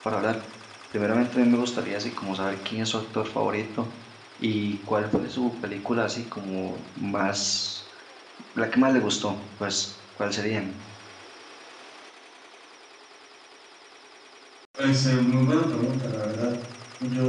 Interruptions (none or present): none